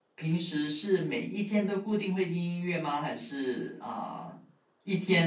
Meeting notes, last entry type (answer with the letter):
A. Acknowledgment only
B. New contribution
A